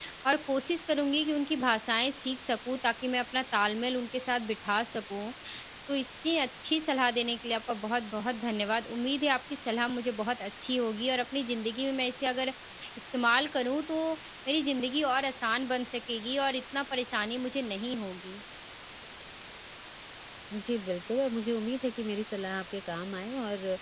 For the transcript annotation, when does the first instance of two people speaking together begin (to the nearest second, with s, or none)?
none